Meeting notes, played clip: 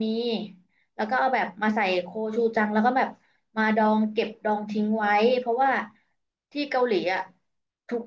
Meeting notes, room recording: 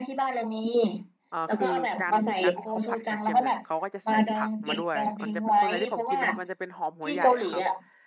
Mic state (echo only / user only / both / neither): both